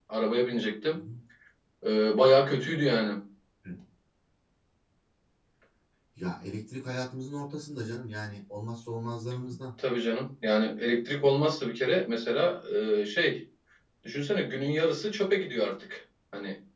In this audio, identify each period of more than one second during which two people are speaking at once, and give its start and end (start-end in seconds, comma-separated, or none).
none